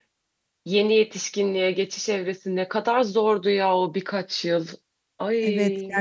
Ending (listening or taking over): taking over